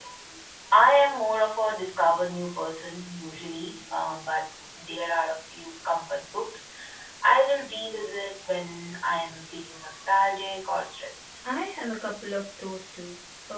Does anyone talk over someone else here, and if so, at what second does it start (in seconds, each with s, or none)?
none